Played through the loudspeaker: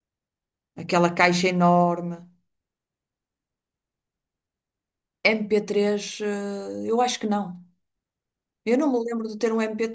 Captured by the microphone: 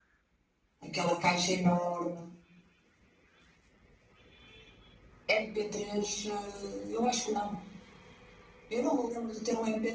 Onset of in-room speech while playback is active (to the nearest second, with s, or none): none